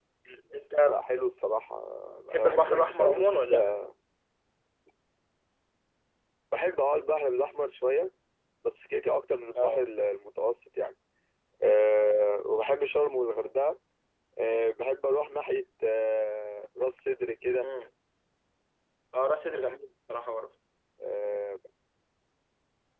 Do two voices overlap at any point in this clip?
Yes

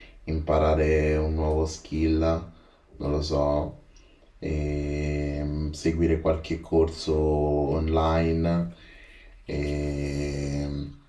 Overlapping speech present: No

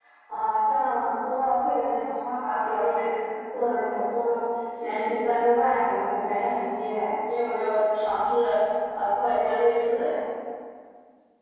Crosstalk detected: No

